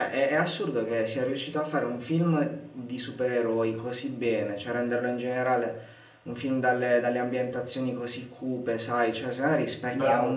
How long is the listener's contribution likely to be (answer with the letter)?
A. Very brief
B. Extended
A